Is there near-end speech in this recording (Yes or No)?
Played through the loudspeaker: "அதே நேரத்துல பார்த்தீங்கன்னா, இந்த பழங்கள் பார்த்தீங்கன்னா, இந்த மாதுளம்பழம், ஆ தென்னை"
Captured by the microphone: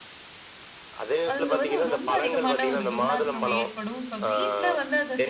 Yes